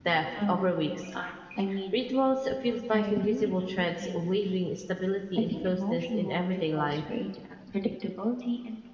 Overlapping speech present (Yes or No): Yes